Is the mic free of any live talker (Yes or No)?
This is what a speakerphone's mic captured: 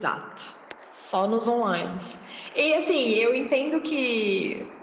Yes